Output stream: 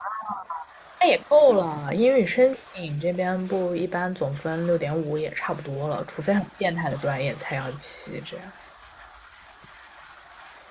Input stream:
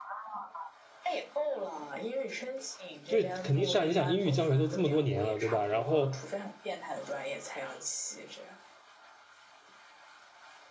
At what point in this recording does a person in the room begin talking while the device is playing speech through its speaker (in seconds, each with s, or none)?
3.1 s